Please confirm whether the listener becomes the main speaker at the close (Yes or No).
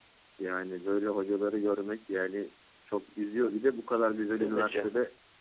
No